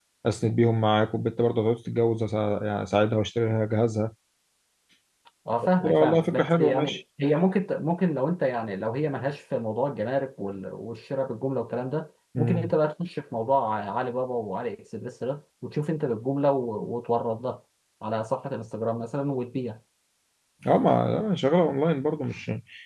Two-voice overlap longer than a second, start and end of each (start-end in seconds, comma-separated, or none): 5.6-7.0